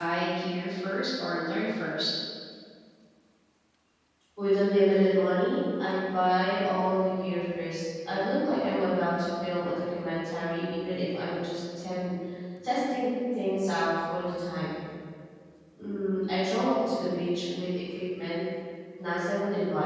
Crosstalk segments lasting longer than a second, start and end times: none

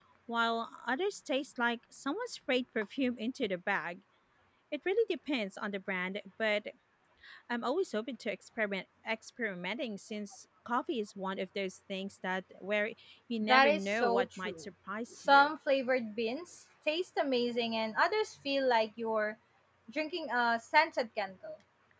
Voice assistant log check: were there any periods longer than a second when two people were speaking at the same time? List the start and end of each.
13.4-14.6

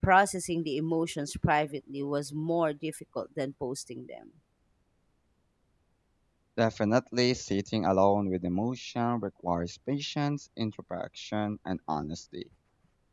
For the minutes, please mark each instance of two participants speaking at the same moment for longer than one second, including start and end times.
none

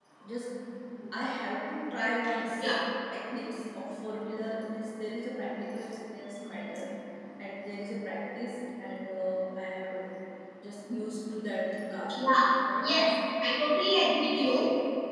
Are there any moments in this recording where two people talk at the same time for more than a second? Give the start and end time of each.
none

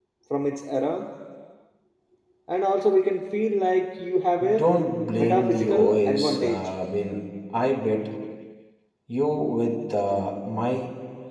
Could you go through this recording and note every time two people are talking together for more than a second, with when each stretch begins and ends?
5.2-6.7

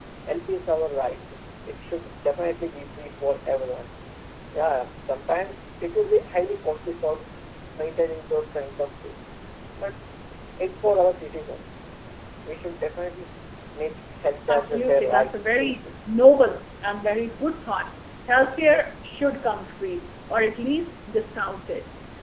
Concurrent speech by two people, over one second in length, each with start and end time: 14.5-15.8

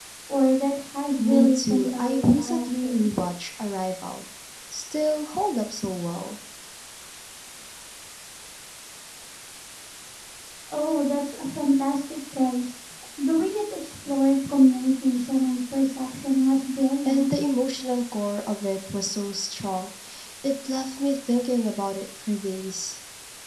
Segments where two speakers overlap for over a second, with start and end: 1.2-3.1

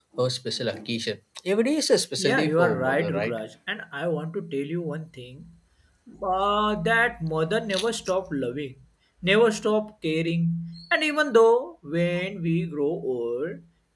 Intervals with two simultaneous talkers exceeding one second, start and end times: 2.2-3.4

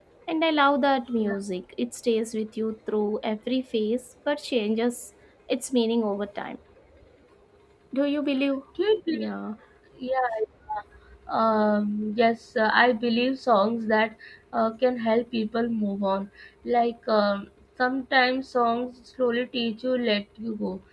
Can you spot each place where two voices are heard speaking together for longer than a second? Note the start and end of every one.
none

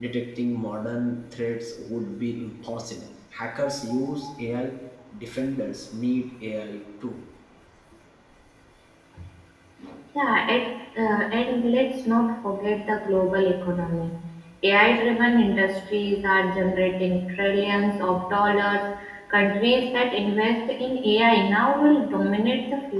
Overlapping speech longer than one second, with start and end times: none

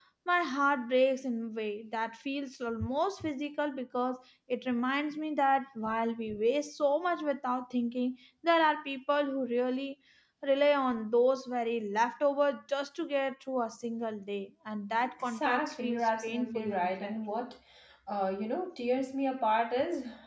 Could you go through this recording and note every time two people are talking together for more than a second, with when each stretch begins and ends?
15.2-17.2

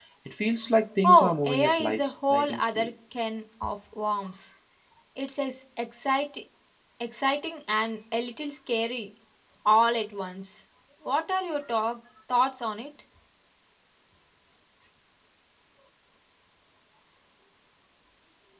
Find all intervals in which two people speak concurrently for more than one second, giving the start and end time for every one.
1.0-2.9

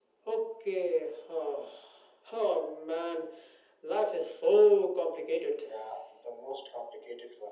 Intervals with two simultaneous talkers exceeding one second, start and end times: none

